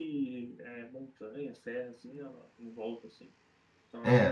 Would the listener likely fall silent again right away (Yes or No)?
No